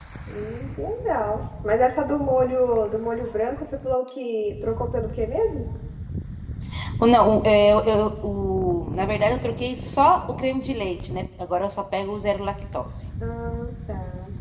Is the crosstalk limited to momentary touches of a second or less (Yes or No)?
Yes